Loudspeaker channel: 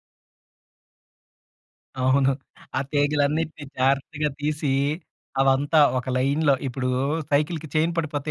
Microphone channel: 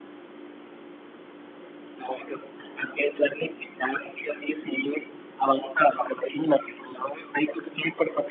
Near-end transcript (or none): none